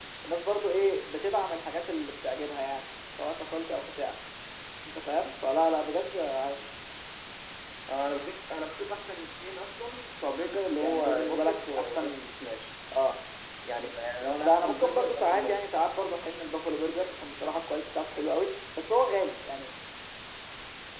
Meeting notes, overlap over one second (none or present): present